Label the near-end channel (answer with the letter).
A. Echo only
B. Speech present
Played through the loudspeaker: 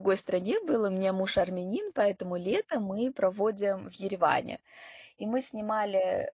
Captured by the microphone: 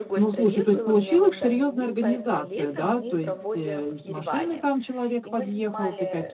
B